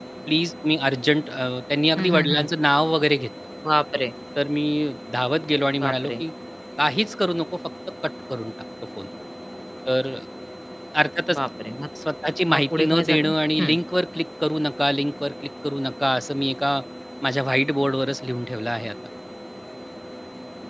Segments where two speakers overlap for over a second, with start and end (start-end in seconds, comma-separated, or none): 12.5-13.8